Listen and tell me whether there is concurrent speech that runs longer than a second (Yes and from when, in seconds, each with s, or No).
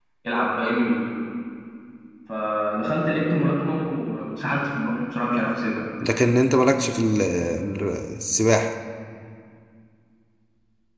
No